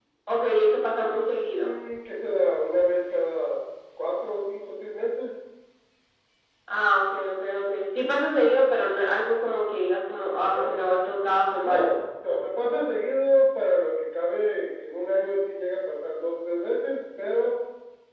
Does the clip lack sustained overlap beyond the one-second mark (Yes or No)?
Yes